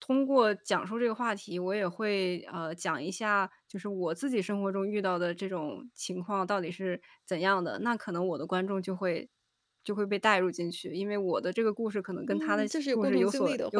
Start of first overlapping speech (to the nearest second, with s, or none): 12 s